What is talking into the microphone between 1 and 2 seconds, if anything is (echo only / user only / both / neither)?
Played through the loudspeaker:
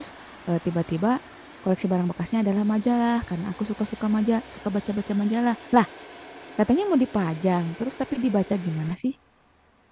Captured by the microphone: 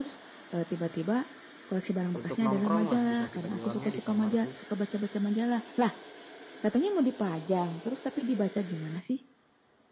echo only